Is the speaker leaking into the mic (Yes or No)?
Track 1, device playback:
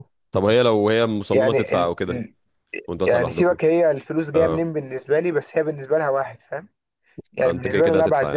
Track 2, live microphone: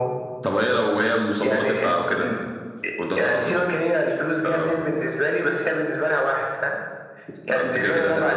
Yes